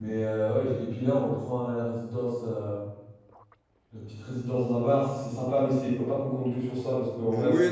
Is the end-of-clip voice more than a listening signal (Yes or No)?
Yes